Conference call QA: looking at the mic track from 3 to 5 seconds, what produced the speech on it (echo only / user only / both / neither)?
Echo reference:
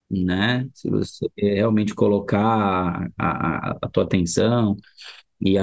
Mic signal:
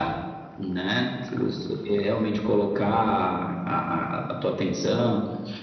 echo only